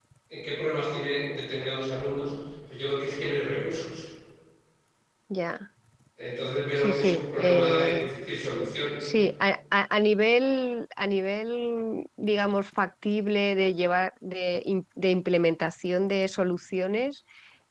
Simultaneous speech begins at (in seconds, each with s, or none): 6.8 s